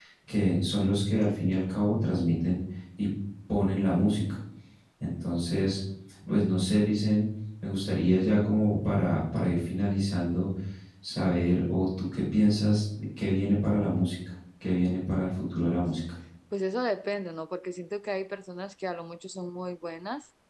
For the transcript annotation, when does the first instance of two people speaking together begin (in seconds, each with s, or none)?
none